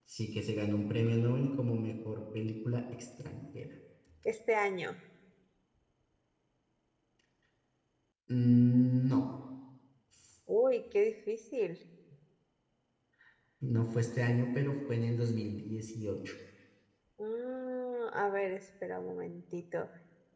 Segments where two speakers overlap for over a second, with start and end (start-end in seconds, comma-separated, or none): none